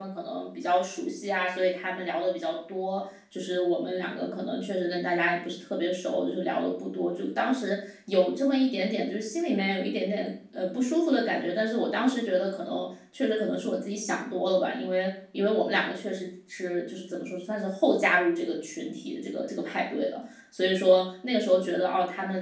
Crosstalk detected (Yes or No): No